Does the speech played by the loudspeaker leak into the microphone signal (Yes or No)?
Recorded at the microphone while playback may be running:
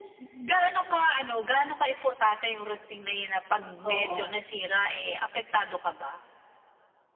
Yes